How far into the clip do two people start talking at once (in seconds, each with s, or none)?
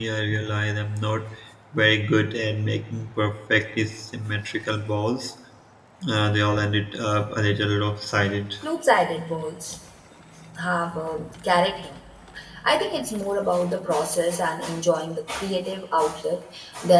none